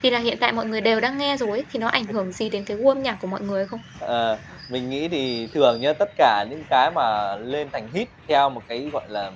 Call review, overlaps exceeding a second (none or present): none